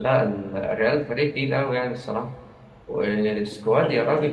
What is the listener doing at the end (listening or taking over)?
listening